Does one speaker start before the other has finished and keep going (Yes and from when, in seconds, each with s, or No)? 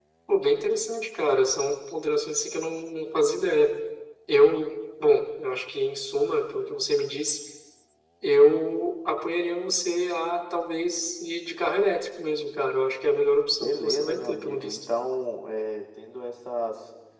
Yes, from 13.6 s